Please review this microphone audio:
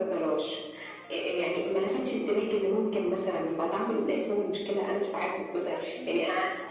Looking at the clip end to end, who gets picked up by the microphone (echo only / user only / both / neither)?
both